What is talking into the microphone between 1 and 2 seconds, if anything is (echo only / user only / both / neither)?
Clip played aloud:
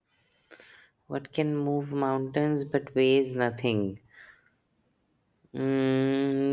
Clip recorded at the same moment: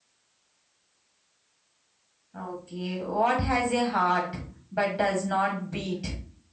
neither